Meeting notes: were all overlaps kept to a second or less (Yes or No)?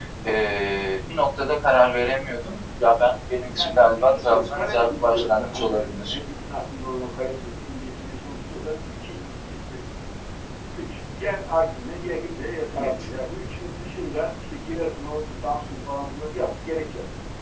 No